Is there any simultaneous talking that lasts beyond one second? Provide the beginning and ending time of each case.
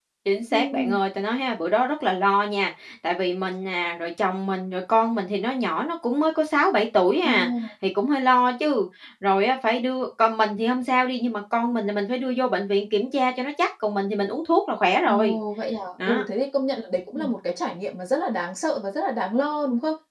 none

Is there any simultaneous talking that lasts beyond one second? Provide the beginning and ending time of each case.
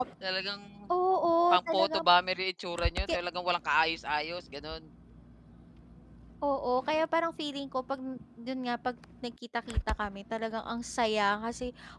none

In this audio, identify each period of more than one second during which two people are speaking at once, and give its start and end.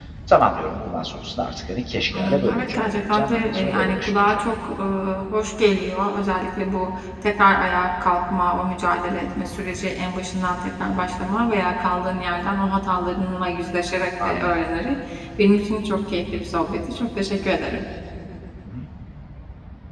2.1-4.5

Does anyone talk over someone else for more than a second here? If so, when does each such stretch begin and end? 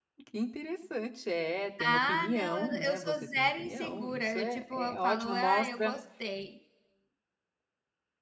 1.8-5.9

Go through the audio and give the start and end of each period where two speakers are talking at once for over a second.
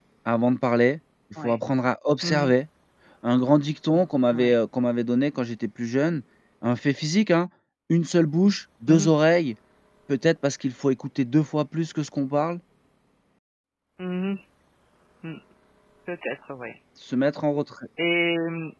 none

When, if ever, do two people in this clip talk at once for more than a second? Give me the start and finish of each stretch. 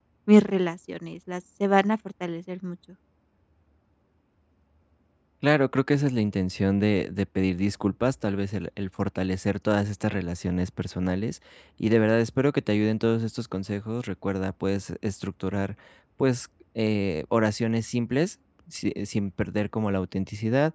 none

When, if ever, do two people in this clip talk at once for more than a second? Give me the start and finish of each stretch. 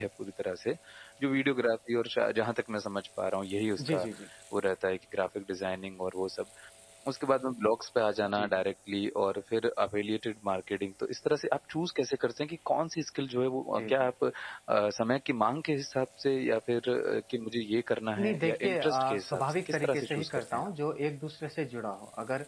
18.2-20.7

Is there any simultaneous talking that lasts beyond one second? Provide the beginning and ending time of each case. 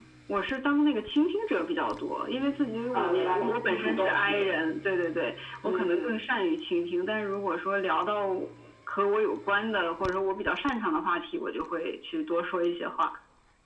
2.9-4.5

